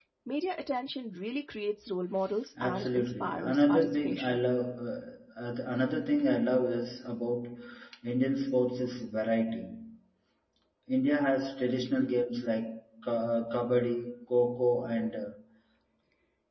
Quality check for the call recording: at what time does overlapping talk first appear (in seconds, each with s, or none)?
2.6 s